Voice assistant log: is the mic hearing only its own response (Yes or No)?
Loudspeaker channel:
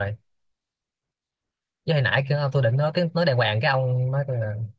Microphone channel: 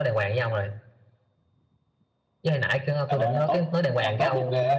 No